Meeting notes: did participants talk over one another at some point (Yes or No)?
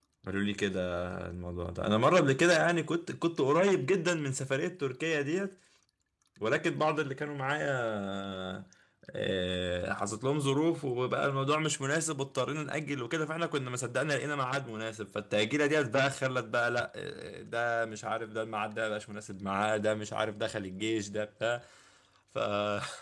No